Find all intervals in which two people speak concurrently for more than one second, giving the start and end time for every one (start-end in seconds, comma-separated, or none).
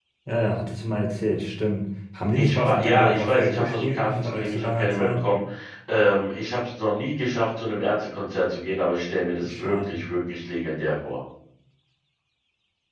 2.4-5.2